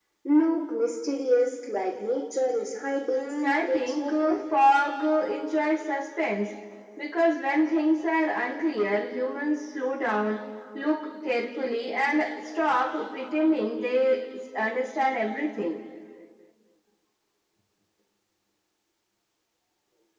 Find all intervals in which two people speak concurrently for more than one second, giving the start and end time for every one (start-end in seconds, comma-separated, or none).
3.1-4.4